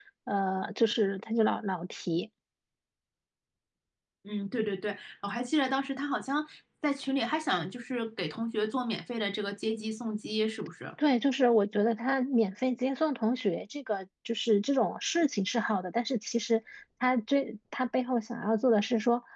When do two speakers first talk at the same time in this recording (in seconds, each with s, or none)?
none